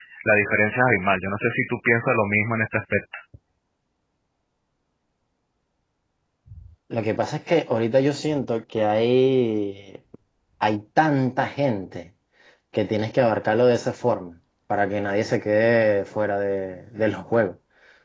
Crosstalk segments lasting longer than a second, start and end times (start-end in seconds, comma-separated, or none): none